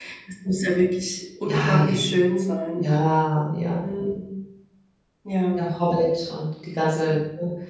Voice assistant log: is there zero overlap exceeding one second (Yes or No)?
Yes